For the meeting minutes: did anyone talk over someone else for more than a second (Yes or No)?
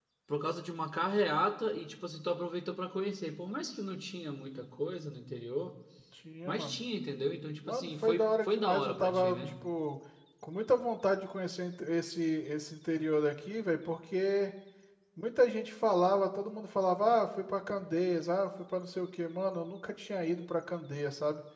Yes